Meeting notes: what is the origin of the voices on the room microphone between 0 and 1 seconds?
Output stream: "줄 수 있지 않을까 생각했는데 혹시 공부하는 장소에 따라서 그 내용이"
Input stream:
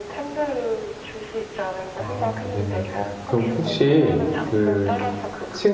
echo only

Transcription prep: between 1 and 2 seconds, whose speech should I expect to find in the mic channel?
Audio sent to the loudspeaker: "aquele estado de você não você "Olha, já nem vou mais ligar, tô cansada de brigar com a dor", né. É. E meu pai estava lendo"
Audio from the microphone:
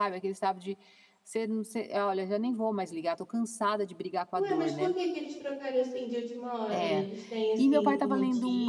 echo only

